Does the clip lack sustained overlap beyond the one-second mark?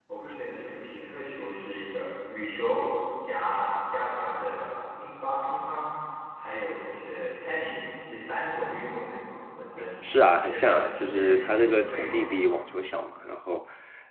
No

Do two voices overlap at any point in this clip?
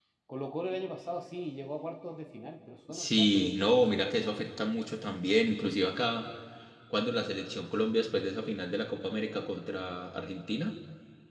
Yes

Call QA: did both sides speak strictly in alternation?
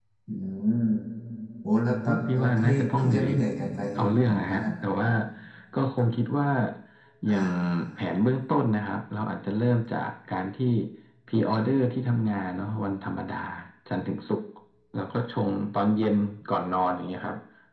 No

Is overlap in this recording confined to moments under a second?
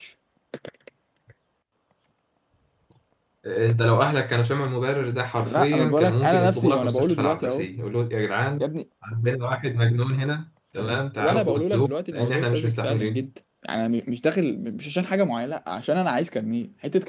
No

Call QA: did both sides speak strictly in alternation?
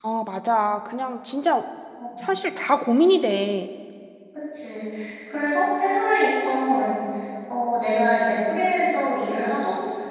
Yes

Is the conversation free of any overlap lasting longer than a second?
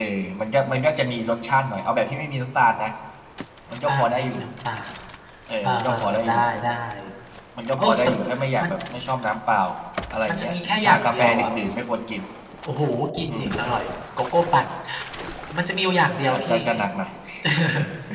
No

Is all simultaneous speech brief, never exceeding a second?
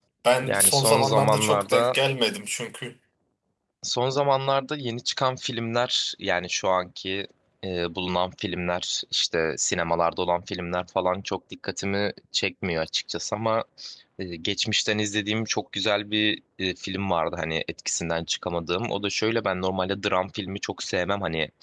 No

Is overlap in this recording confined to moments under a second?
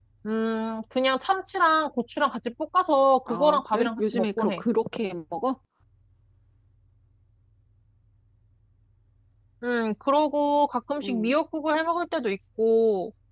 No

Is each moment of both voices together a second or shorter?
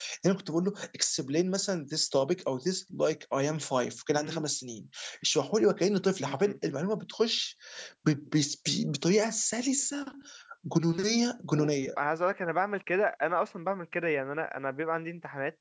Yes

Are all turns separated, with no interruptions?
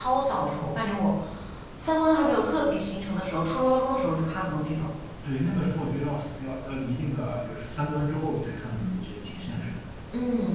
Yes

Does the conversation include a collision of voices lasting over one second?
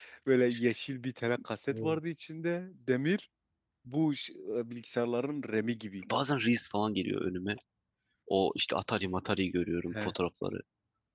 No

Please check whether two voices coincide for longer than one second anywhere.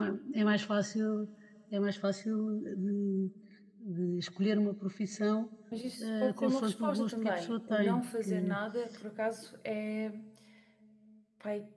Yes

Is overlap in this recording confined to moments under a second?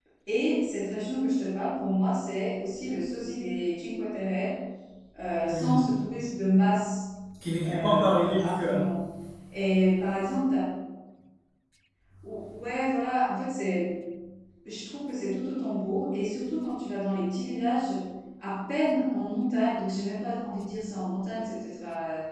No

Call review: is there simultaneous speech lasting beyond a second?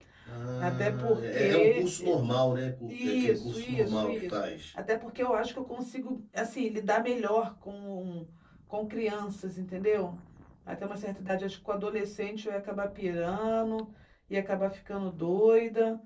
Yes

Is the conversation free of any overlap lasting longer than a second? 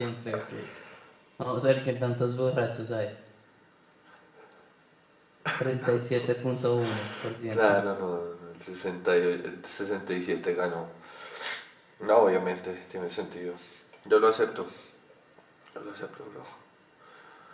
Yes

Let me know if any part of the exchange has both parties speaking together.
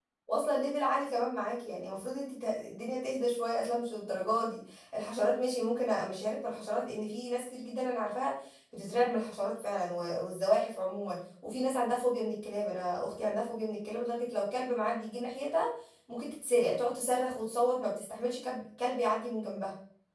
No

